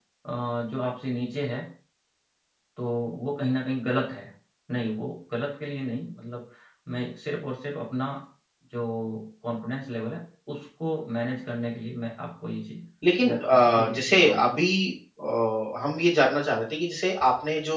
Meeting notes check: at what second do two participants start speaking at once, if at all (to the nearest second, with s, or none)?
13 s